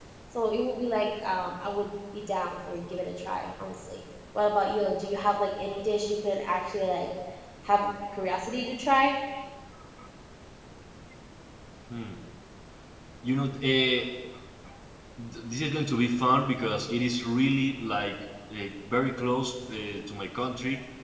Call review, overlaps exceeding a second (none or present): none